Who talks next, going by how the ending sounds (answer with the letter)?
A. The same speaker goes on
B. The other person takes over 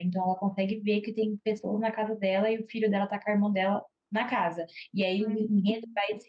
A